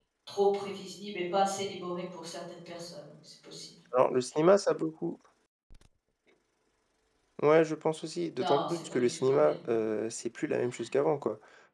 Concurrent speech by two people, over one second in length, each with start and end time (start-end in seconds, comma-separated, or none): 8.4-9.7